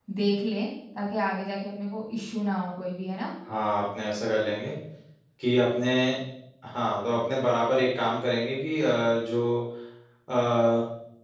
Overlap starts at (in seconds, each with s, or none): none